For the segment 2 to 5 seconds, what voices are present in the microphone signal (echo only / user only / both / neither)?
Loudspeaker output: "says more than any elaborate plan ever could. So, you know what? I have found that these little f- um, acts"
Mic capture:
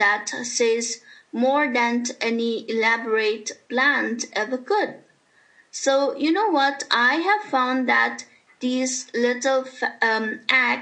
echo only